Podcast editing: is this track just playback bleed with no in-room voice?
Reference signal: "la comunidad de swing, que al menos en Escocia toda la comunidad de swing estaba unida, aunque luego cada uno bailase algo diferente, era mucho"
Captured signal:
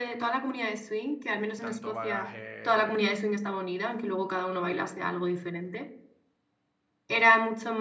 No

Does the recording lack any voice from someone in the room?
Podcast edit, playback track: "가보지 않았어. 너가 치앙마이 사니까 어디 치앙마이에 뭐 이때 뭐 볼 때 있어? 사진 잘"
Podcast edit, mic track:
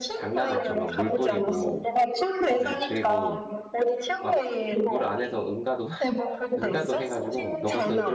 No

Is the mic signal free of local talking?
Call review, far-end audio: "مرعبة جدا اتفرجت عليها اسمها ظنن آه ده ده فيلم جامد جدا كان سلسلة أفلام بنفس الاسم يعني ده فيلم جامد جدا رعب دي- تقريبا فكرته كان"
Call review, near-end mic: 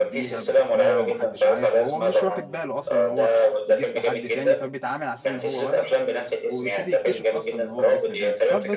No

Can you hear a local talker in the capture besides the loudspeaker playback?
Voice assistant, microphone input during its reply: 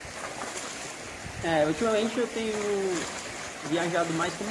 Yes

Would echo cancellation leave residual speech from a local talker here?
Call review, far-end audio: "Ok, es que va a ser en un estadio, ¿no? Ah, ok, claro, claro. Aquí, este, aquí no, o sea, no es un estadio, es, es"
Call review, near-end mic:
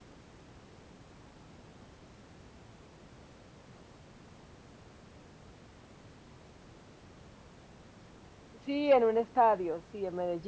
Yes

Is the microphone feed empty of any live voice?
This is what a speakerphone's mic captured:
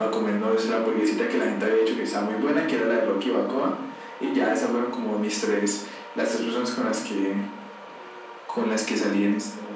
Yes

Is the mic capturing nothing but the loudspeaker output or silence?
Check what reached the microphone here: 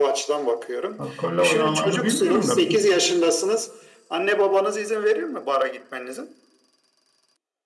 No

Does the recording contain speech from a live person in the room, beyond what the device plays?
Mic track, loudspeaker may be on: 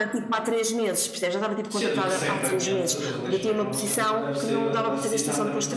Yes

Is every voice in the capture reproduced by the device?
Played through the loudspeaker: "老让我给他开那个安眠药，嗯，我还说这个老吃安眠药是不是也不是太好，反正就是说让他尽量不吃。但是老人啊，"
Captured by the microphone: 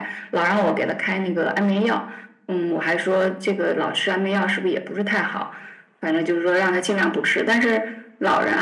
Yes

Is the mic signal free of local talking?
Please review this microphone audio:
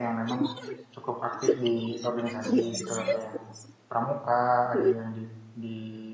No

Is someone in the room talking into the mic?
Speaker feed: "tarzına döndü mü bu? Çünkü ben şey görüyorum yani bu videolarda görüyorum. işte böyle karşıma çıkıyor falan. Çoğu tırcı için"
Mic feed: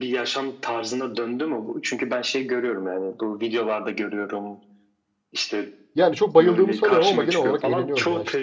Yes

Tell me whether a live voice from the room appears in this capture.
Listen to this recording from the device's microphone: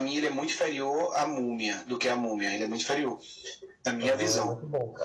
Yes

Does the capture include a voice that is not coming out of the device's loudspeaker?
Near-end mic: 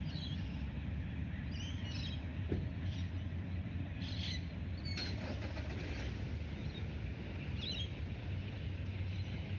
No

